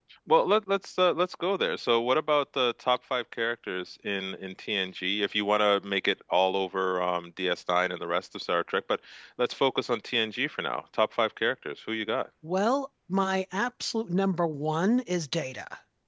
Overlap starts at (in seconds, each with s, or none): none